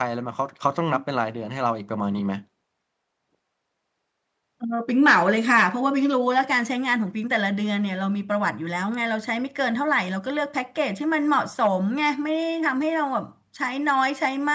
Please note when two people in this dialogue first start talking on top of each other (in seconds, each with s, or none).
none